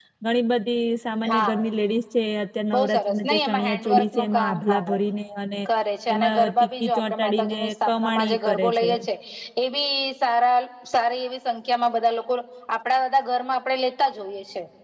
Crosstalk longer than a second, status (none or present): present